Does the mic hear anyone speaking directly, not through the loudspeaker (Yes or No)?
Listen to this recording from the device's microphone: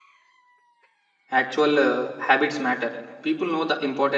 Yes